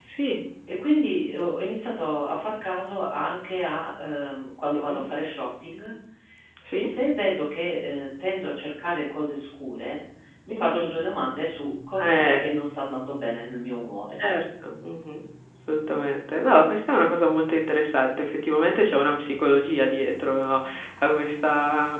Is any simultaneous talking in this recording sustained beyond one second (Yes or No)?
No